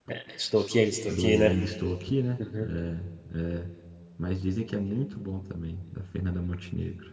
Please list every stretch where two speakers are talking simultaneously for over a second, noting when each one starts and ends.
none

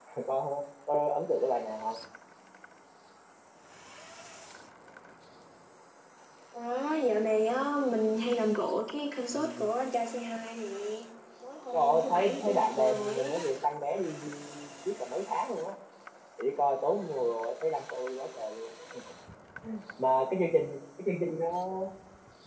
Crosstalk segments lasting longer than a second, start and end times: 11.7-13.4

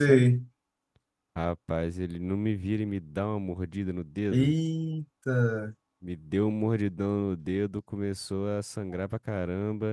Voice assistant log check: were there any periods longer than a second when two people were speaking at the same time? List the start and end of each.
none

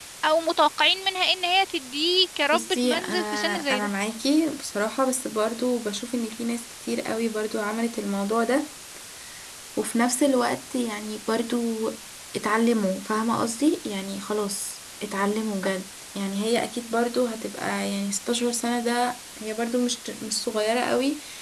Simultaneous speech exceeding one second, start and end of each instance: 2.5-3.9

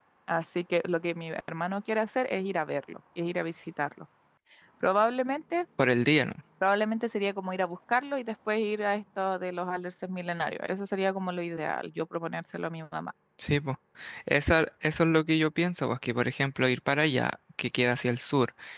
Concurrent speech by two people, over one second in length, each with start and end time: none

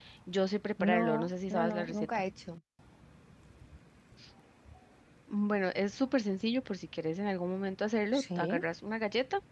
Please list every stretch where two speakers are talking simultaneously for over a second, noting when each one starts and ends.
0.8-2.2

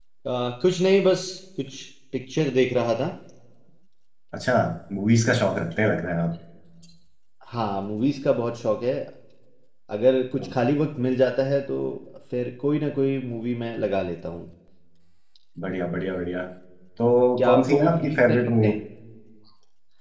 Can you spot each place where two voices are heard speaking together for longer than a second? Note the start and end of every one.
17.4-18.7

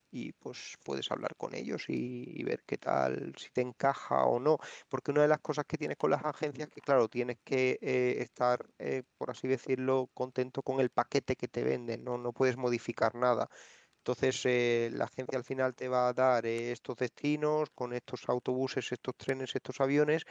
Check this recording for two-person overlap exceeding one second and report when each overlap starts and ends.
none

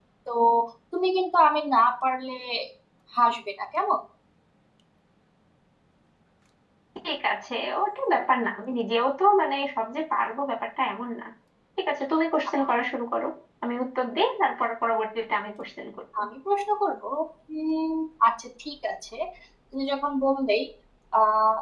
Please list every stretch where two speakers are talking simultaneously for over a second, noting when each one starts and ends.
none

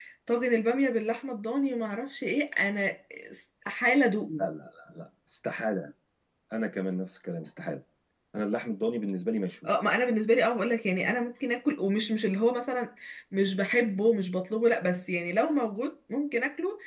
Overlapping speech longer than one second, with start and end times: none

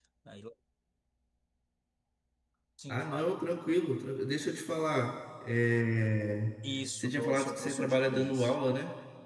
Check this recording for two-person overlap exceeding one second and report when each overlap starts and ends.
7.0-8.5

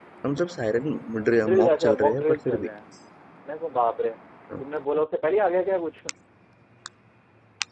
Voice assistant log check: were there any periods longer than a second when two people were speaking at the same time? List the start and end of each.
1.4-2.7

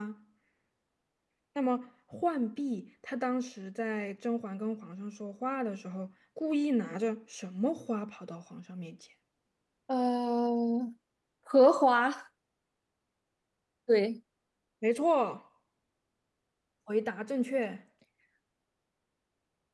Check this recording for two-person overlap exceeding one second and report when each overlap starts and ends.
none

